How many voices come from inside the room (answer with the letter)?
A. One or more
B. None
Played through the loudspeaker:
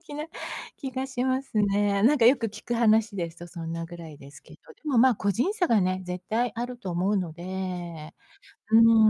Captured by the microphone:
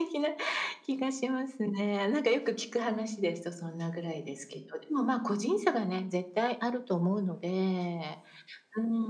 B